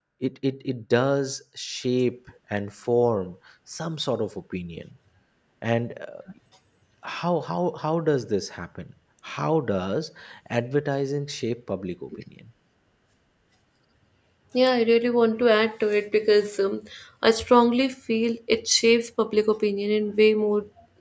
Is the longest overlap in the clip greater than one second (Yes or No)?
No